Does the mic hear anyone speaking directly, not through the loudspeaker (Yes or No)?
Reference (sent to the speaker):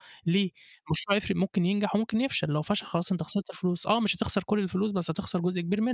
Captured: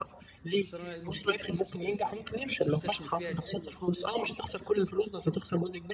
Yes